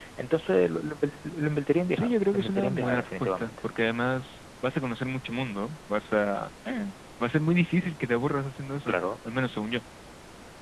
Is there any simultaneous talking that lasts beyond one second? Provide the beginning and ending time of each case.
1.9-3.5

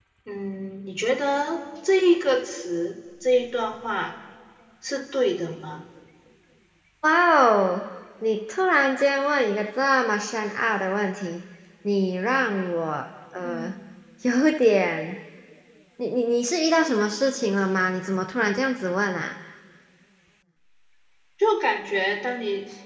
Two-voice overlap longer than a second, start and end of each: none

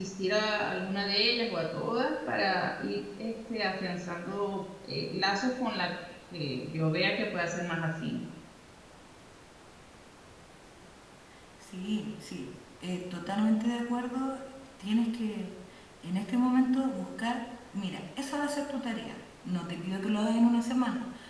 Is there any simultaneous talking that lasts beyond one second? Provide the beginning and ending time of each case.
none

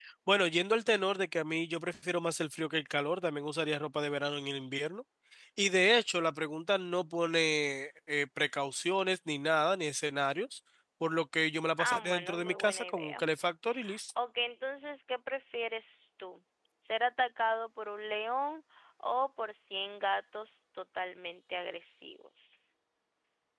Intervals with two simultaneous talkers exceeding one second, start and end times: 11.8-13.2

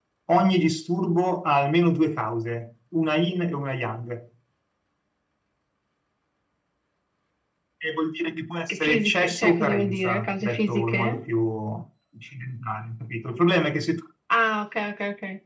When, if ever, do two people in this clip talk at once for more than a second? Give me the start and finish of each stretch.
8.7-11.3

